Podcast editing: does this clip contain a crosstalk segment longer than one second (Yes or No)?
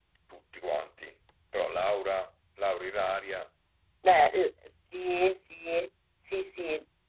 No